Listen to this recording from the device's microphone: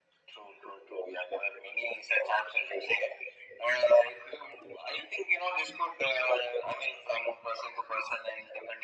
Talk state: echo only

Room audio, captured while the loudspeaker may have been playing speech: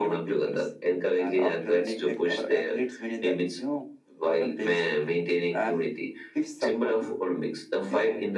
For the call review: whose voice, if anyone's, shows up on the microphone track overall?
echo only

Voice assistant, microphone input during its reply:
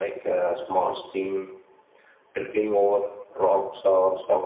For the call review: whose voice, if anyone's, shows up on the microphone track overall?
echo only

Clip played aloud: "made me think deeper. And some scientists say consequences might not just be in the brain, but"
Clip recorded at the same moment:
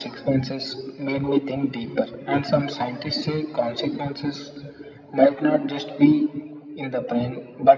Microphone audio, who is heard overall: echo only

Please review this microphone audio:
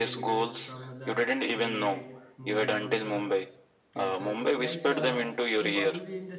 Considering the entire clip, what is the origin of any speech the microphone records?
both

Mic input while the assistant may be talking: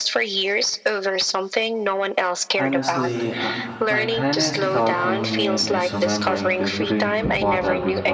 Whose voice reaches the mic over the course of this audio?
both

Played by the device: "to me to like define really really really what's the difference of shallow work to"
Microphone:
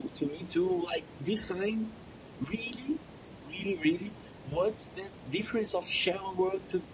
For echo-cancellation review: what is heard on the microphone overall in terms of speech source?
echo only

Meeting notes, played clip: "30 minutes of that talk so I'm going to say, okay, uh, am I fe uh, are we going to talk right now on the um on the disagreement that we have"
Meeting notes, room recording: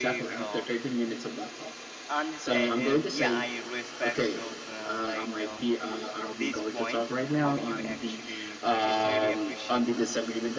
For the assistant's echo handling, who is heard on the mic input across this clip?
both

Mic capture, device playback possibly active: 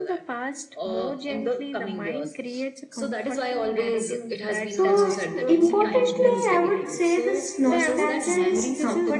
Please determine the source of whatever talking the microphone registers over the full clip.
both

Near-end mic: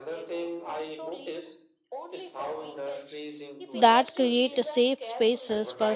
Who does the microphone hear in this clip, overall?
both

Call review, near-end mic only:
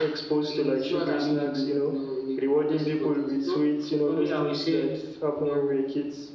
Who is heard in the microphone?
echo only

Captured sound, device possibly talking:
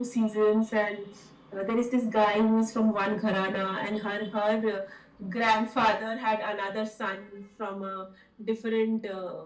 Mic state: echo only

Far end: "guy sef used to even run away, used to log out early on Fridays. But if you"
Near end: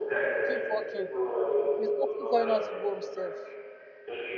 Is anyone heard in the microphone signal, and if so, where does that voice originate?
both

